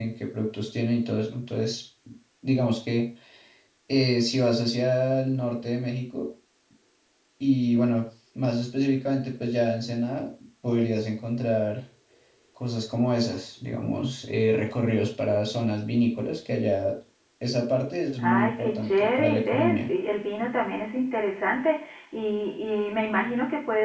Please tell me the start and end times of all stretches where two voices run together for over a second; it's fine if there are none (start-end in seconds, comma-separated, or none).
18.2-19.9